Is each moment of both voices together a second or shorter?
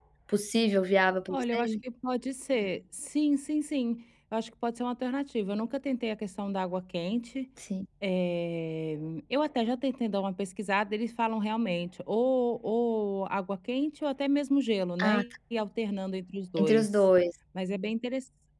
Yes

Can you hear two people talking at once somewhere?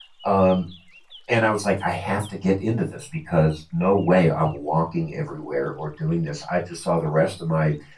No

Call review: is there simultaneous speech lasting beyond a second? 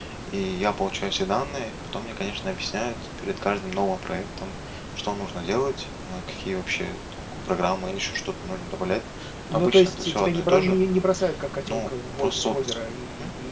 Yes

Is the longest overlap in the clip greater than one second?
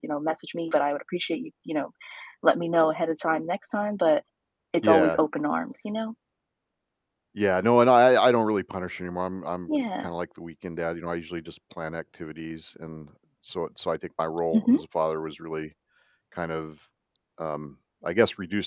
No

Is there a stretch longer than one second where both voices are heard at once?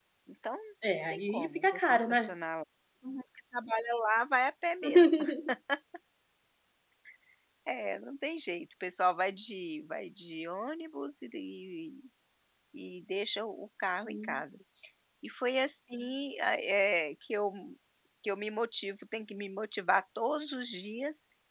Yes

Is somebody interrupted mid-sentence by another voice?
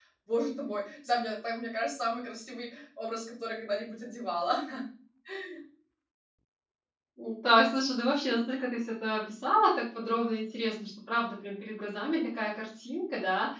No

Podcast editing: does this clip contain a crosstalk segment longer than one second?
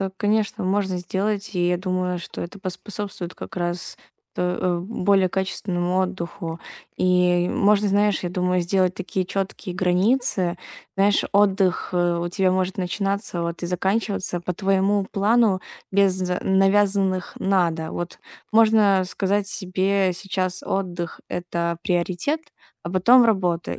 No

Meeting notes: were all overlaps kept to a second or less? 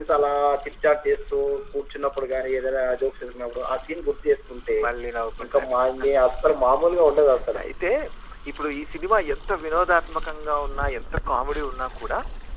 Yes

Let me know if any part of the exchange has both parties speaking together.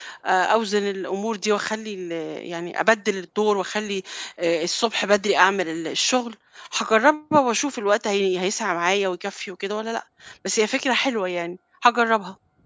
No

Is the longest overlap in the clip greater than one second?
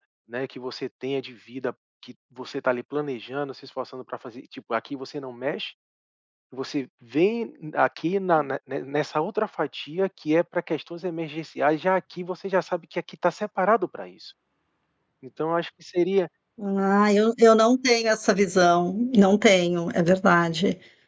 No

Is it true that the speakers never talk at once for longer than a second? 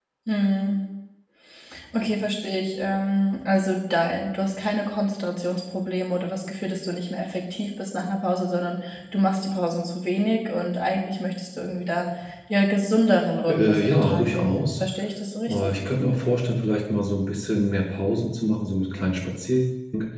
No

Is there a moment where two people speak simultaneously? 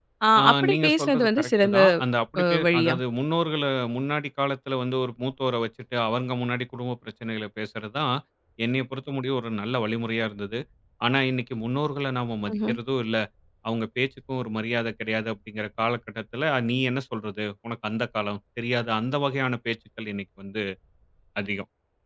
Yes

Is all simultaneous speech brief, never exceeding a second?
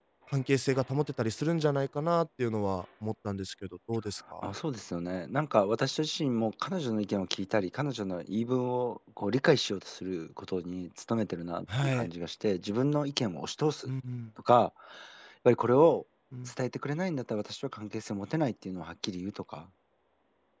Yes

